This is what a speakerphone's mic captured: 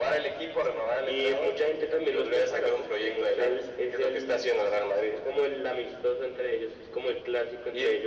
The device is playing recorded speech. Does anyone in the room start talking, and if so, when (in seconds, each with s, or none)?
none